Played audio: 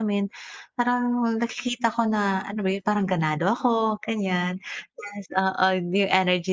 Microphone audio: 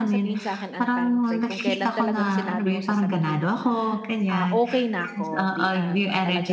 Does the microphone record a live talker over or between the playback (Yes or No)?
Yes